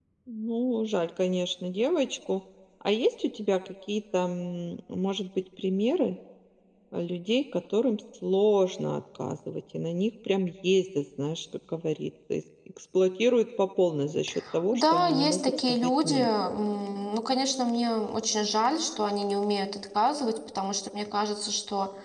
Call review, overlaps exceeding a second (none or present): present